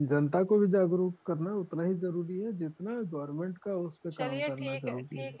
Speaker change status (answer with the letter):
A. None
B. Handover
B